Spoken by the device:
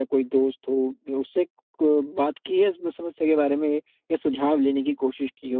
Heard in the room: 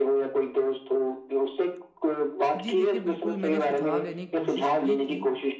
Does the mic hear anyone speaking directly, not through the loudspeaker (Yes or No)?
Yes